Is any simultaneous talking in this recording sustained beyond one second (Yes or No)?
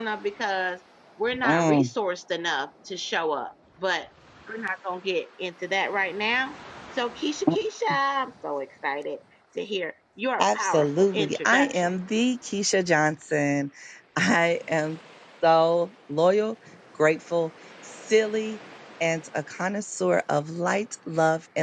Yes